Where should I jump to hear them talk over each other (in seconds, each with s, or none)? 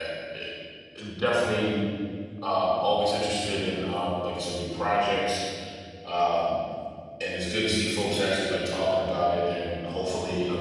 none